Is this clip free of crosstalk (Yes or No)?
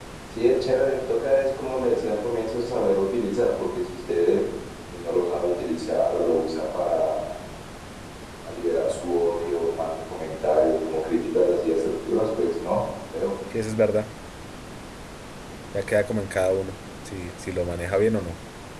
Yes